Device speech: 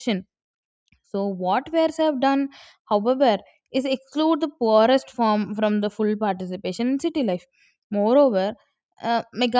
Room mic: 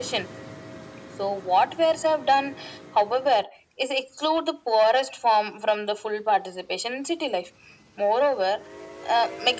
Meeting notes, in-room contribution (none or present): none